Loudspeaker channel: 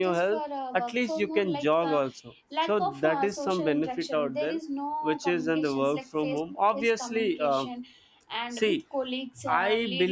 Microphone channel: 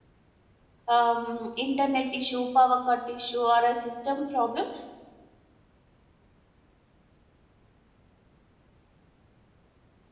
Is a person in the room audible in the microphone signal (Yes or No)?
Yes